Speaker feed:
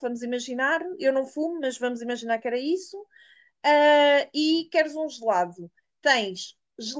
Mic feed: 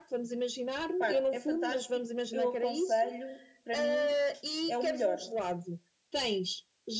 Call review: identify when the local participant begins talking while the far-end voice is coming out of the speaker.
1.0 s

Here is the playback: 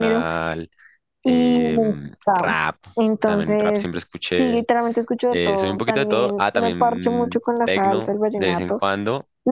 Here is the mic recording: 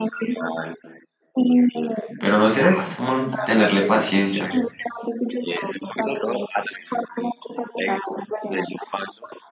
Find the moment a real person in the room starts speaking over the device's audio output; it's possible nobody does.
2.2 s

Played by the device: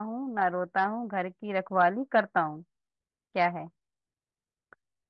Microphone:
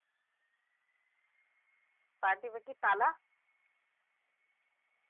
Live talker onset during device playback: 2.2 s

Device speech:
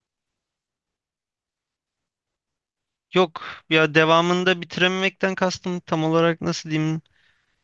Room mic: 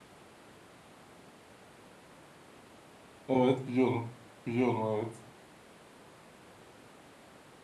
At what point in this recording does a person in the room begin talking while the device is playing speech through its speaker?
3.3 s

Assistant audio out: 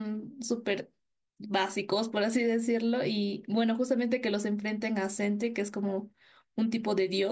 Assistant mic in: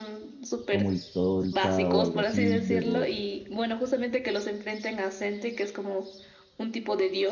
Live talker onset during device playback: 0.7 s

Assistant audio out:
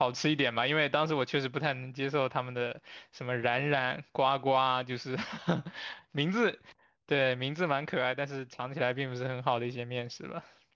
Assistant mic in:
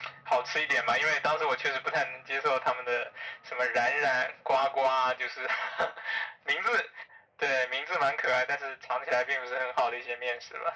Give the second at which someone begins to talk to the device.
none

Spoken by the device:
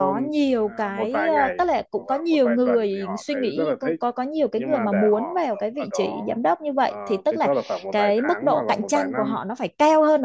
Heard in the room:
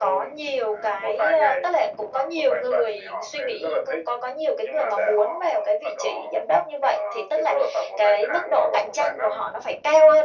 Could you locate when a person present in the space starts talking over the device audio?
none

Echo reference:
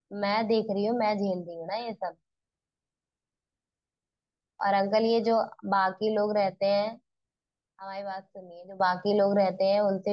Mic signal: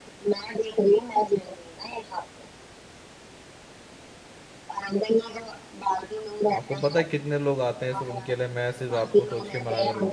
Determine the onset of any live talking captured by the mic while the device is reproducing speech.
6.6 s

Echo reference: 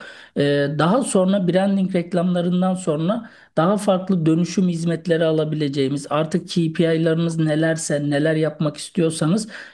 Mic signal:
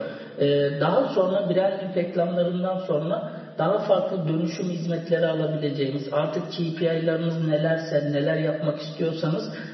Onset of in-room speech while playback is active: none

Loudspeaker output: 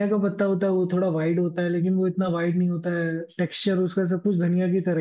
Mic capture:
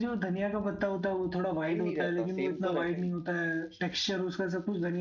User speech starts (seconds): 1.6 s

